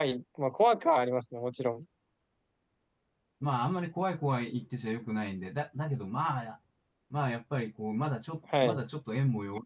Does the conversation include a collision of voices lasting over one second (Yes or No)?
No